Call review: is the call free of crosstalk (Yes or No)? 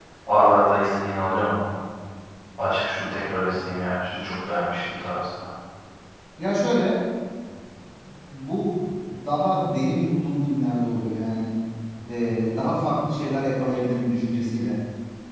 Yes